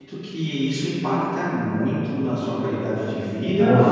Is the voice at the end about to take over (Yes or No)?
No